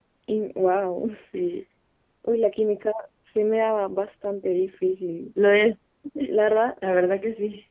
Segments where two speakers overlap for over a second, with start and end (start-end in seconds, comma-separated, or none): none